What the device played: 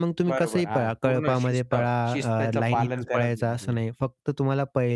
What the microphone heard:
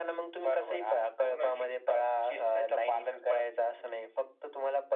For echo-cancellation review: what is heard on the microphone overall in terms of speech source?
echo only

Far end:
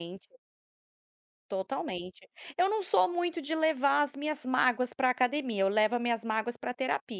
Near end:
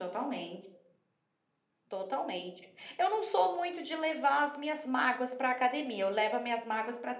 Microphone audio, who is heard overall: echo only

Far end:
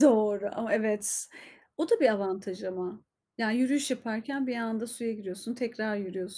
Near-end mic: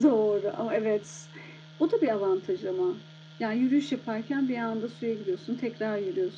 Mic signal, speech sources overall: echo only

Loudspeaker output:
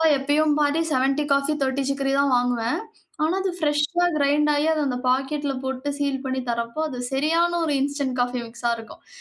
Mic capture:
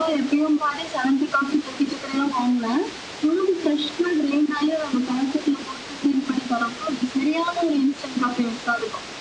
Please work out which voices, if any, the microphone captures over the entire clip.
echo only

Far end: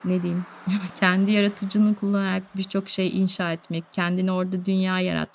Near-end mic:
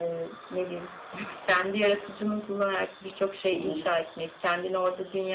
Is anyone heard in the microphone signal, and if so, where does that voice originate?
both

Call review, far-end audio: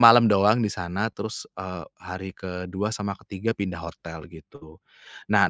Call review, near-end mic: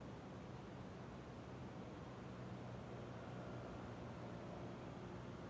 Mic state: neither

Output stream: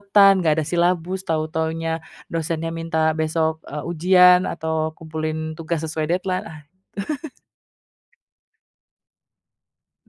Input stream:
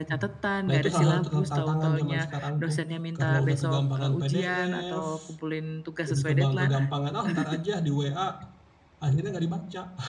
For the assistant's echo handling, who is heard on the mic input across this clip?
both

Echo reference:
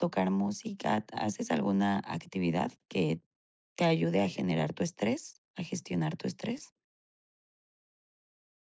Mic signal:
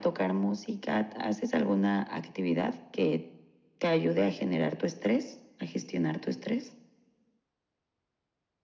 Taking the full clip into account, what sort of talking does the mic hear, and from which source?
echo only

